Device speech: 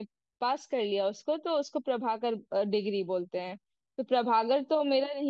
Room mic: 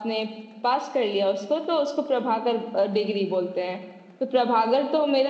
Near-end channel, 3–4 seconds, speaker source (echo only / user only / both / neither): echo only